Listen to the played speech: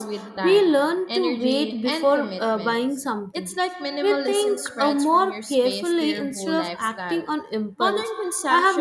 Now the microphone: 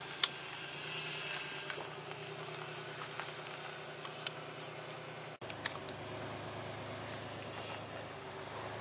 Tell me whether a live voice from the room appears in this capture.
No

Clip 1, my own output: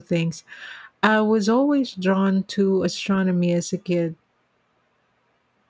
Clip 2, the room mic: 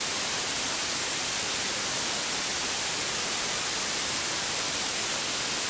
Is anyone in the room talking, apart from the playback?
No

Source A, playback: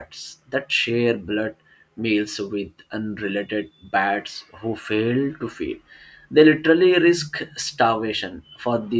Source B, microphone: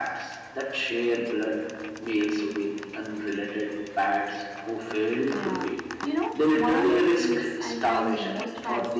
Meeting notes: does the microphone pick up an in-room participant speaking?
Yes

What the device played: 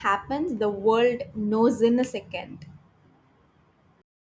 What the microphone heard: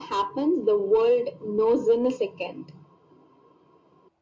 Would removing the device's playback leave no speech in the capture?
Yes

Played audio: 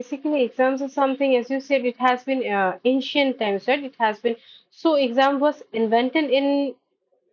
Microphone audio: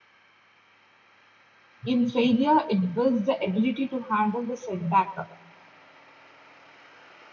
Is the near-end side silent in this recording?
No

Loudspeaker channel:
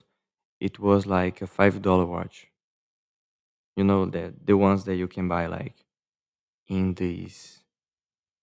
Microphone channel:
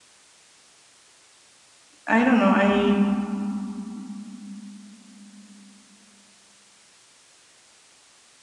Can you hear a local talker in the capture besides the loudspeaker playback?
Yes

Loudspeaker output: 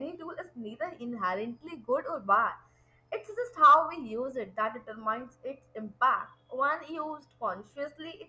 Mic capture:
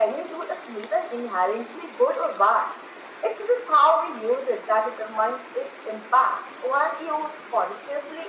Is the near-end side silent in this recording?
Yes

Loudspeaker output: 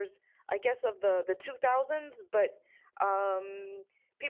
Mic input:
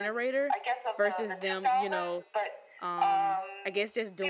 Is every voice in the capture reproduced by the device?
No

